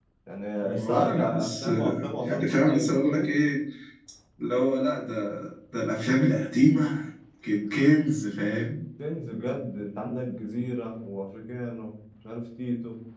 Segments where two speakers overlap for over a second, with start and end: 0.6-3.3

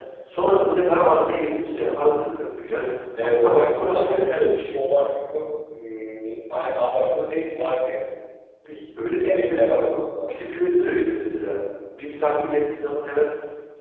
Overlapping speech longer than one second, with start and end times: 3.2-4.8

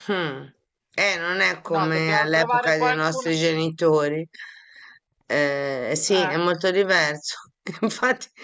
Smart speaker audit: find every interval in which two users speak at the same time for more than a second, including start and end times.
1.7-3.3

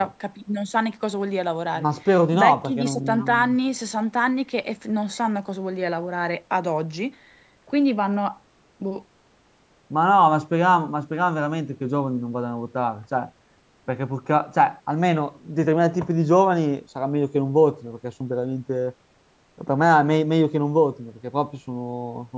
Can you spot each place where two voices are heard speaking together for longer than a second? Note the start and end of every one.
2.3-3.6

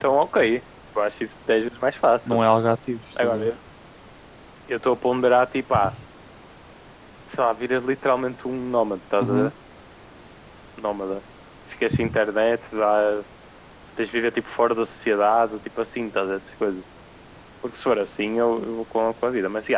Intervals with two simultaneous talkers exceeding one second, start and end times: none

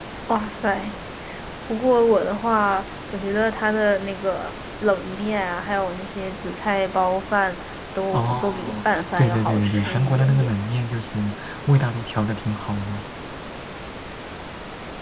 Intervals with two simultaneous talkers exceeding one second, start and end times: 8.1-10.5

